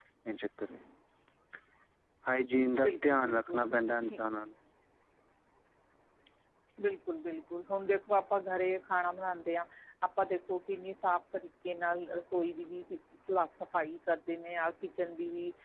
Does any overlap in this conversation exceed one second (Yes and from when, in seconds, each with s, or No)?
Yes, from 2.8 s